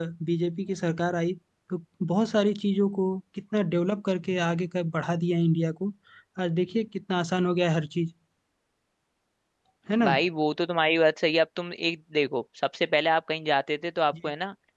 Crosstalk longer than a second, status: none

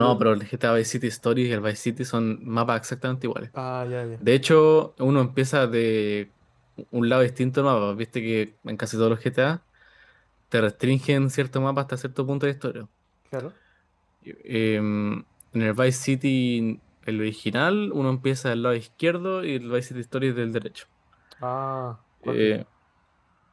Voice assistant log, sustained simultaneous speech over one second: none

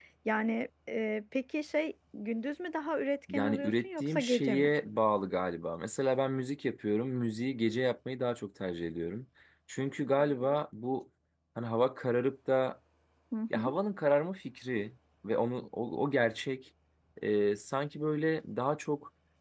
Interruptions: present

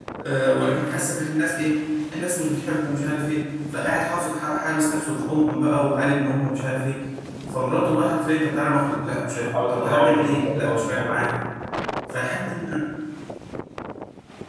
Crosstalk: present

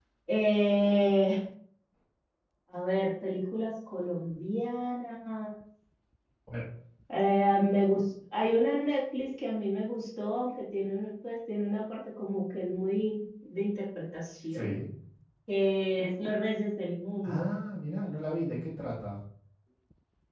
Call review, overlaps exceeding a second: none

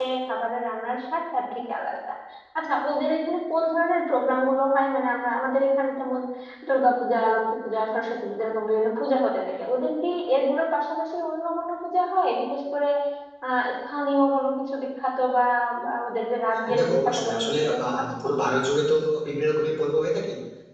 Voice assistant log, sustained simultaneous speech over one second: present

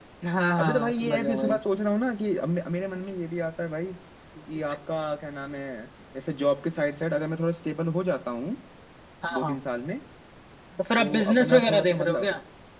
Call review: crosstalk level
present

